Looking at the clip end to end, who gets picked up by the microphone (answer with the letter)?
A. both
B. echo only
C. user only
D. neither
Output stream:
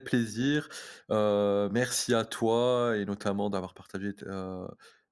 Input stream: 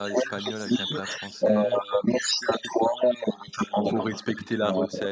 A